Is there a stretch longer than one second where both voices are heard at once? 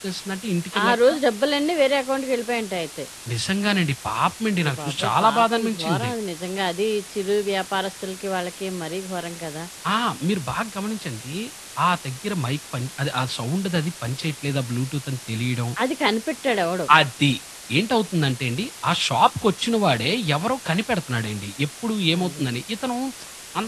Yes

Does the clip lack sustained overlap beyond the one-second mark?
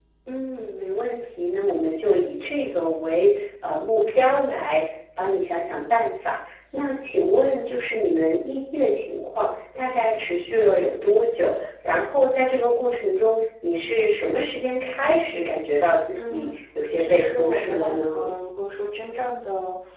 No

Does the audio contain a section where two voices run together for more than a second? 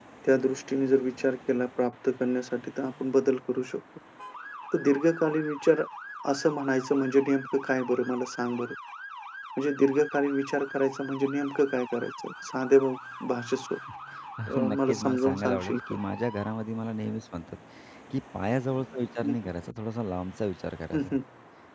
Yes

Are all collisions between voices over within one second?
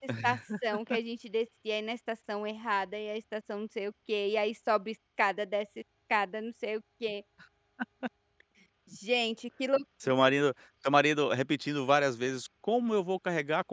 Yes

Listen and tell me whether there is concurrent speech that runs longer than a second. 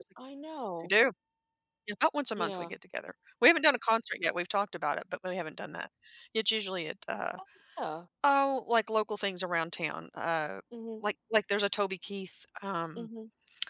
No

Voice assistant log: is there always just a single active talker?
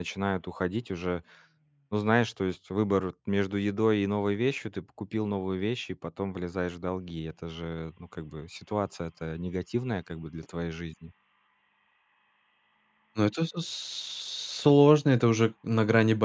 Yes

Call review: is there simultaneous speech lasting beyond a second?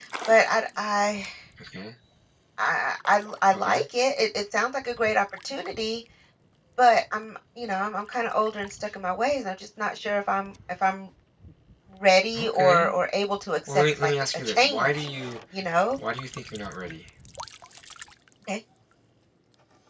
Yes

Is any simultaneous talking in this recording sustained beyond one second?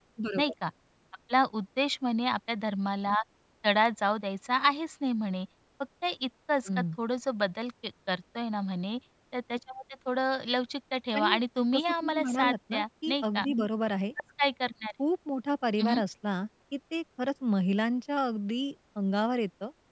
Yes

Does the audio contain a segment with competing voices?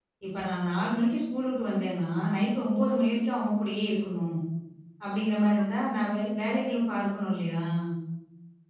No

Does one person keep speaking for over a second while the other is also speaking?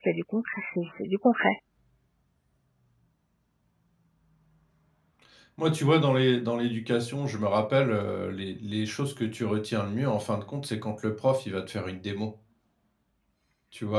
No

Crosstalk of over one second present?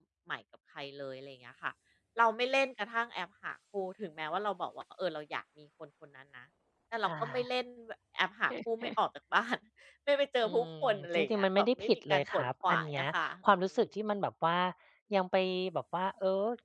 Yes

